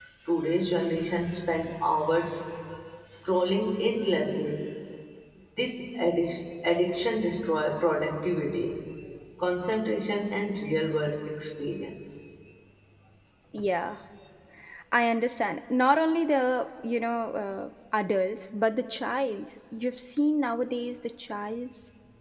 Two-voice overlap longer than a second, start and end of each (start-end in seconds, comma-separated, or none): none